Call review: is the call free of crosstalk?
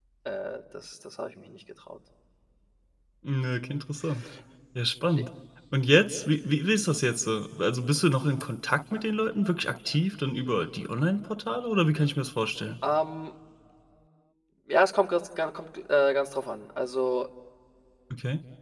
Yes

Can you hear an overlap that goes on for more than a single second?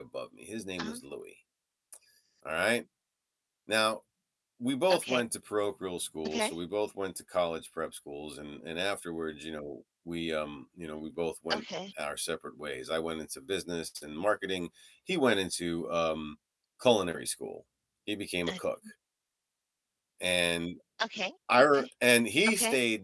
No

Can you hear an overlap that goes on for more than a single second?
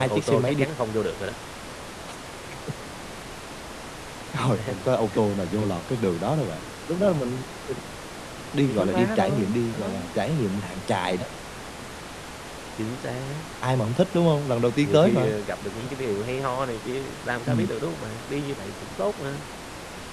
Yes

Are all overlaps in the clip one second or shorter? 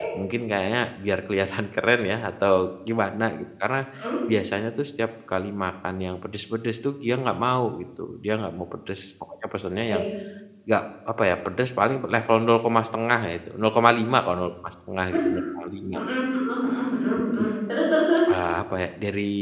Yes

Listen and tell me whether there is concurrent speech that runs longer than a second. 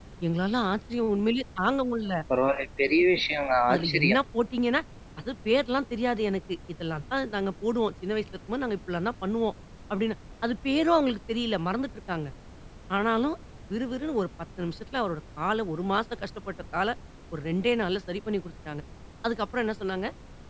No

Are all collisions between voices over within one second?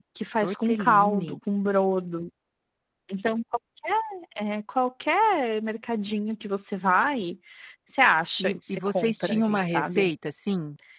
No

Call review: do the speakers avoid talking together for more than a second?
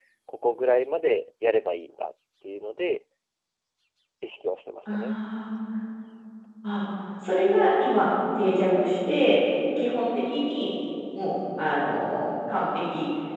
Yes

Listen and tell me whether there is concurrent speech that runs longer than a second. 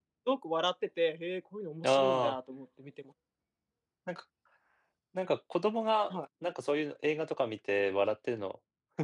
No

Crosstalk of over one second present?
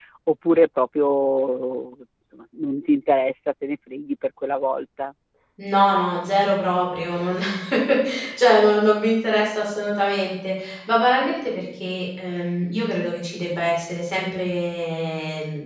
No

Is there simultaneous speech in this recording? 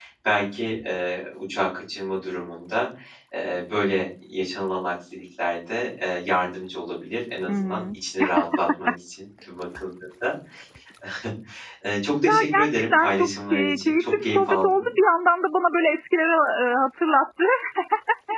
Yes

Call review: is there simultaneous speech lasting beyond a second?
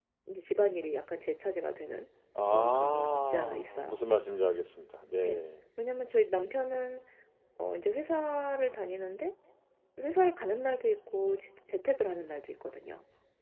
Yes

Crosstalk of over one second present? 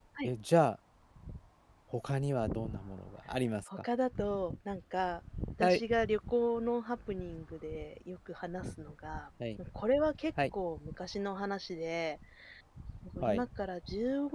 No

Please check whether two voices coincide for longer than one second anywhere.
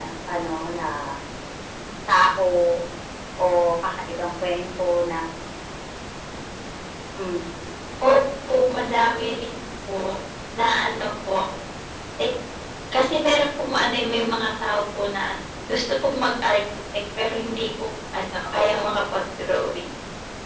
No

